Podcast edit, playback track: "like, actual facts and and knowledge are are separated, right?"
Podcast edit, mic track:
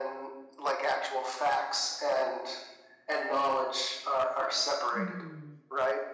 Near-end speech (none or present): present